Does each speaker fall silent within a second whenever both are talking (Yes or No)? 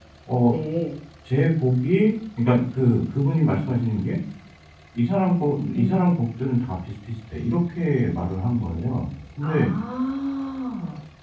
Yes